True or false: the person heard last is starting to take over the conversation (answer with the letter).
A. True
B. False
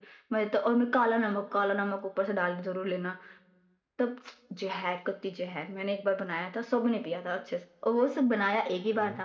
B